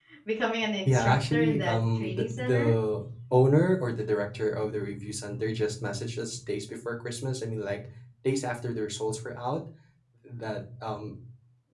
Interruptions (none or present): present